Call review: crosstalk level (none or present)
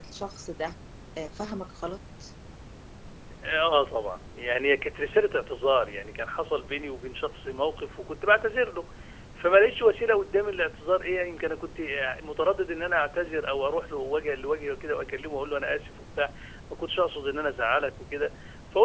none